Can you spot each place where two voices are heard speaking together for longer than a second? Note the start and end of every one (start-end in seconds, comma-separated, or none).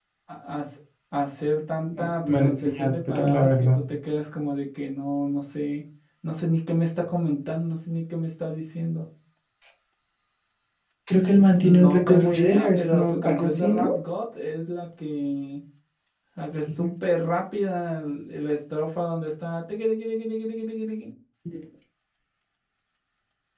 2.0-3.8, 11.6-14.0